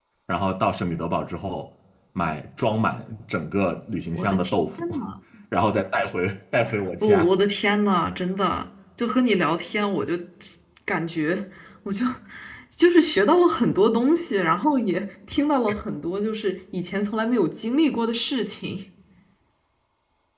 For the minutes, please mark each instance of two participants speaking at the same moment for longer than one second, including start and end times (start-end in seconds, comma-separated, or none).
none